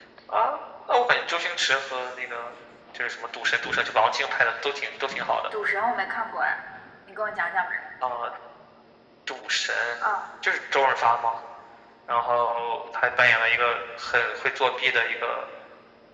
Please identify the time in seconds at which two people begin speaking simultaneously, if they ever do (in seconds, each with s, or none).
none